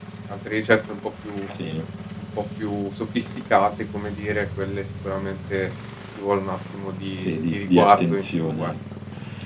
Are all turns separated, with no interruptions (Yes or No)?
No